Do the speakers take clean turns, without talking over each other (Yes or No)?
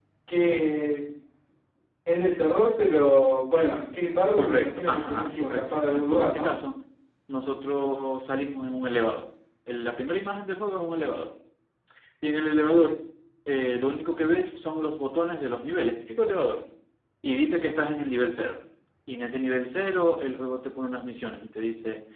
No